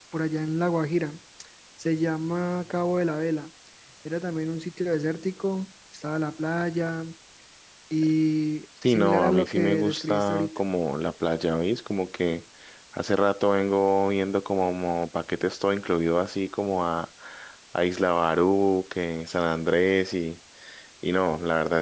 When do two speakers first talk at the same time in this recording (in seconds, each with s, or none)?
8.8 s